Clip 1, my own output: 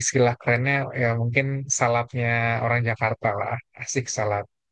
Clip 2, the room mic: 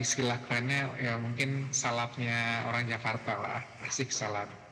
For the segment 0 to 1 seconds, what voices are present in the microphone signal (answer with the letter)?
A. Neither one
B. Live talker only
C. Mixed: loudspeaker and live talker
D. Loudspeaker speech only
D